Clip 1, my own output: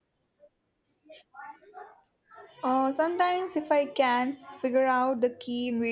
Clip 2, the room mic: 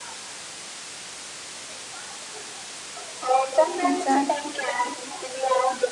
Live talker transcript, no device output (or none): Exactly.